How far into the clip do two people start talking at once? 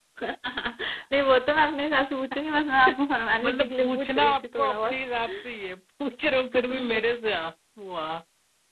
3.4 s

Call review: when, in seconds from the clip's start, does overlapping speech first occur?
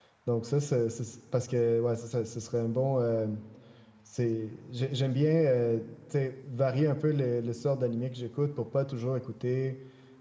none

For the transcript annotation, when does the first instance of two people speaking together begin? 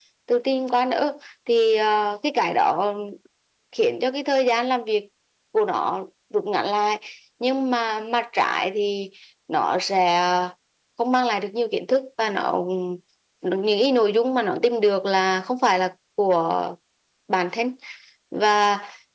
none

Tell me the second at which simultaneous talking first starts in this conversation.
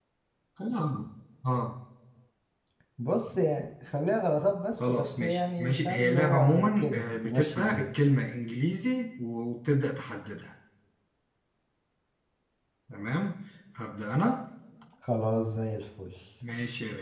4.8 s

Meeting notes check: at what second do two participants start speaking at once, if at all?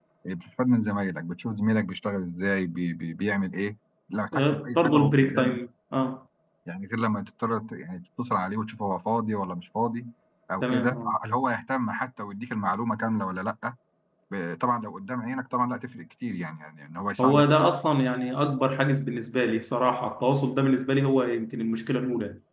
4.3 s

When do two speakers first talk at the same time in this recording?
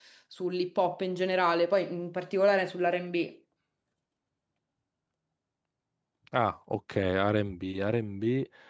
none

